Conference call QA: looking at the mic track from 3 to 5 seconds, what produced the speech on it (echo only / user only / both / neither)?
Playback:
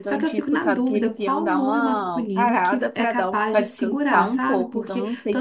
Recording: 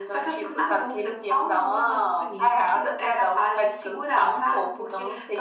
echo only